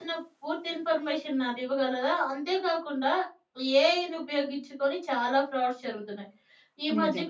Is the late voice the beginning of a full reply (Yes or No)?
No